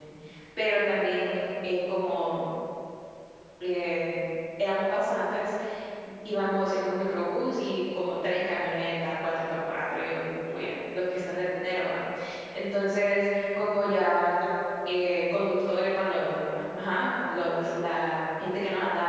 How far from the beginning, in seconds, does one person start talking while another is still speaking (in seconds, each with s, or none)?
none